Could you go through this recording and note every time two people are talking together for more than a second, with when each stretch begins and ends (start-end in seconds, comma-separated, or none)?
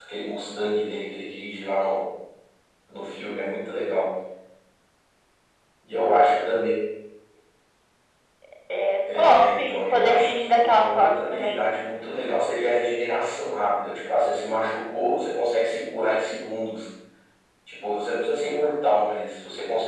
9.2-11.6